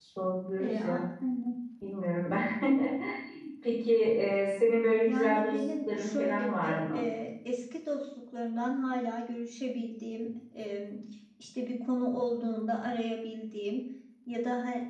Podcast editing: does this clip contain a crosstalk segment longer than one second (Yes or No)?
Yes